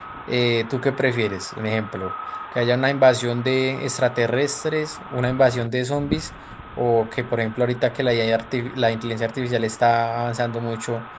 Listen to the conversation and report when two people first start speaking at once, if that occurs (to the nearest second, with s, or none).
none